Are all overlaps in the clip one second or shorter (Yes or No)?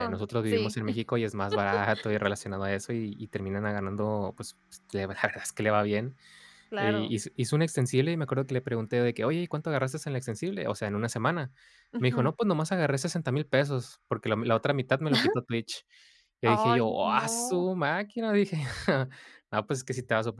No